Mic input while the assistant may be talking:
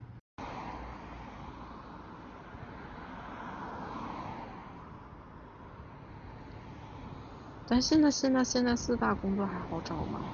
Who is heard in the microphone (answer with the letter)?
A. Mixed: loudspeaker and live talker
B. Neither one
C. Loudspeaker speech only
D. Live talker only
D